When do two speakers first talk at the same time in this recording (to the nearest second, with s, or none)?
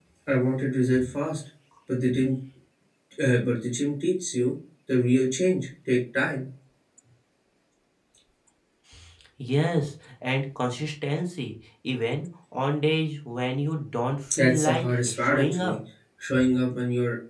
14 s